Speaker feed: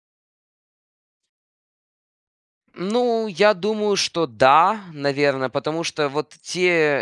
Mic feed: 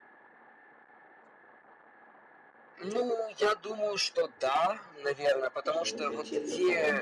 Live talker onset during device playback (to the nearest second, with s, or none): 6 s